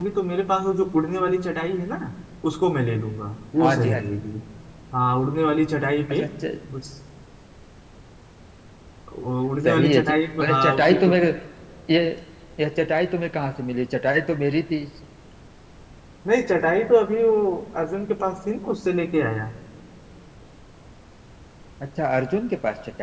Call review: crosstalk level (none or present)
present